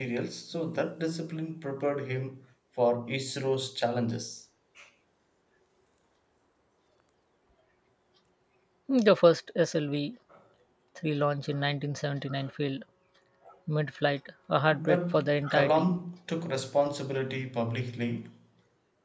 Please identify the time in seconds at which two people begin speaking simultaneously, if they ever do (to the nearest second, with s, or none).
15 s